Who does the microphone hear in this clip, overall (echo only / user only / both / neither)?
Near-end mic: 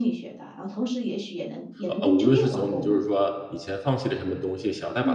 both